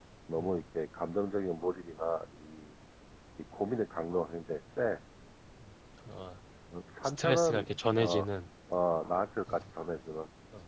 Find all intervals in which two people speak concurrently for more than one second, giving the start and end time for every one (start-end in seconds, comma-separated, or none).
7.0-8.2